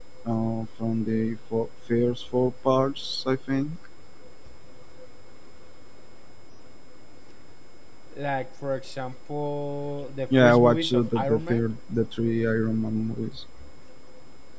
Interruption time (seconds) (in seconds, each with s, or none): 10.3 s